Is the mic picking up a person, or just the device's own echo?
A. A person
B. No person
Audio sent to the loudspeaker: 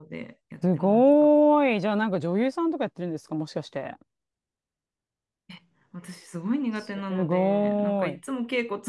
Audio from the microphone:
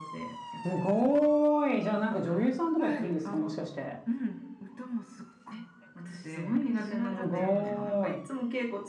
A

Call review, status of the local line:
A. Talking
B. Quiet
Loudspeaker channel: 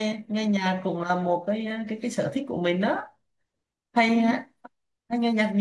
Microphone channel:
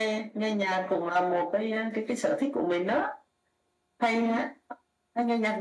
B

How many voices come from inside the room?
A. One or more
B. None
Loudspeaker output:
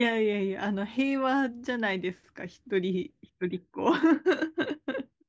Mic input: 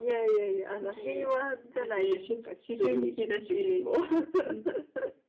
A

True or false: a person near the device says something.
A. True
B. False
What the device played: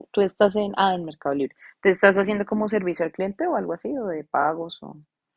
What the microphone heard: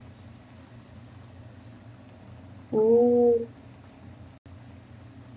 A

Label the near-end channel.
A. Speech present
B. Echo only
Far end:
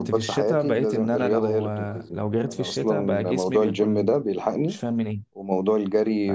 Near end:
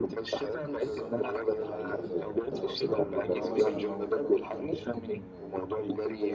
A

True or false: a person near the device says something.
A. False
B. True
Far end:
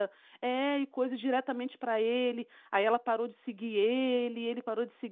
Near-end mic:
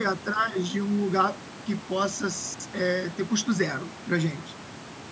B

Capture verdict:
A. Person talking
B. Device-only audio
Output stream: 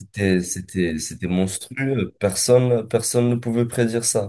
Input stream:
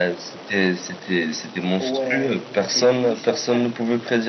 A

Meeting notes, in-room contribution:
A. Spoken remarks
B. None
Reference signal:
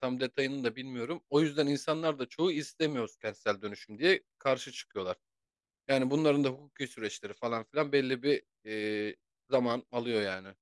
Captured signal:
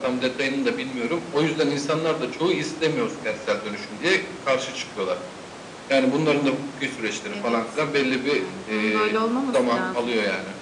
A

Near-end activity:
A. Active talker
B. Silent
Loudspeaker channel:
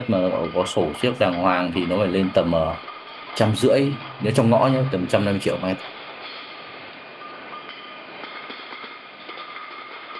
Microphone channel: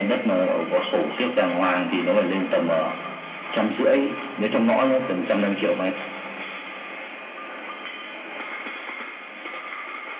B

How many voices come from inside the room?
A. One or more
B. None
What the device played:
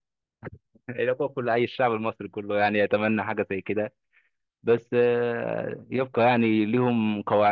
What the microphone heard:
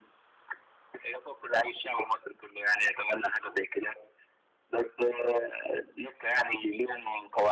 B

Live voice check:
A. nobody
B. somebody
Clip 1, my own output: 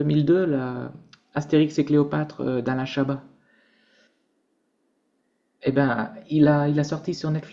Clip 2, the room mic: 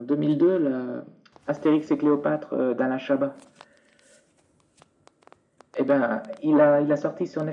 A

